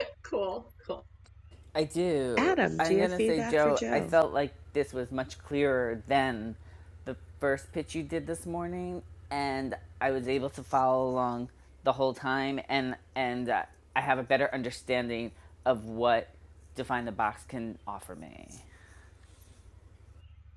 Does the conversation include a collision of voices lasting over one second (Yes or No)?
Yes